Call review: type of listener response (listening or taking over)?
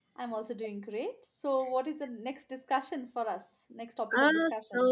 taking over